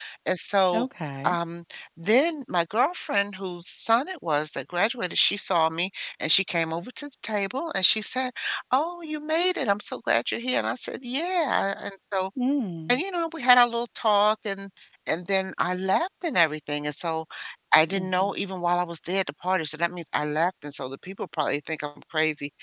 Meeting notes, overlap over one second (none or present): none